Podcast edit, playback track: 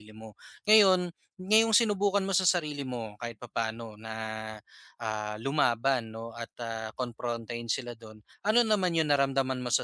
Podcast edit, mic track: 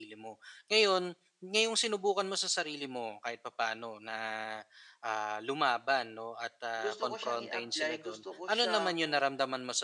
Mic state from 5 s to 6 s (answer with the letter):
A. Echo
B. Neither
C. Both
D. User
A